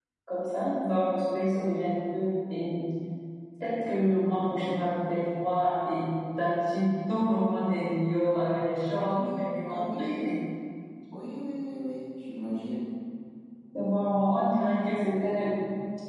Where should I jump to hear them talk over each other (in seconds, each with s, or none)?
8.9 s